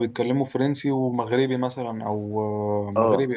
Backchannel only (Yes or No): No